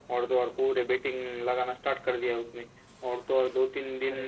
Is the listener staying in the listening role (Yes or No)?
Yes